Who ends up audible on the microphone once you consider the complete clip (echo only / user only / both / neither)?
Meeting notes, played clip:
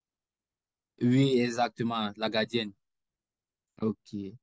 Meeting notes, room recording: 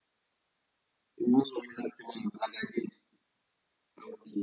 echo only